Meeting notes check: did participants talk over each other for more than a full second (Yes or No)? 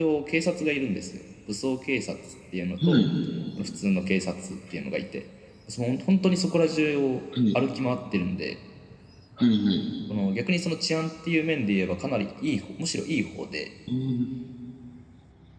No